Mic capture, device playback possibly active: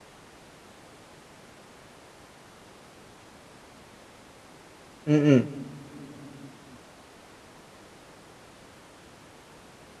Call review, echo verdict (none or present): none